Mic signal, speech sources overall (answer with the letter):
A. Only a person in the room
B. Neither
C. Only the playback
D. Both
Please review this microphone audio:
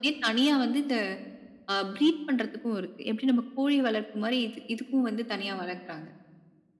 C